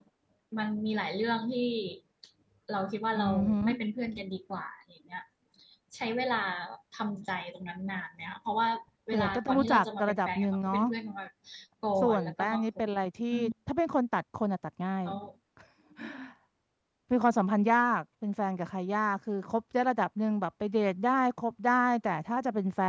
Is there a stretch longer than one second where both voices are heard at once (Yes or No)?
Yes